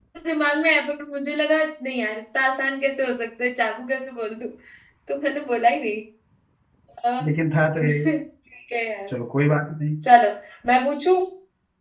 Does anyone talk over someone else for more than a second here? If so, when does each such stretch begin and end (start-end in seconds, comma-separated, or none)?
none